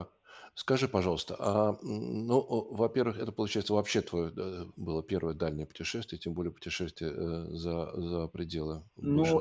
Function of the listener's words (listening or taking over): taking over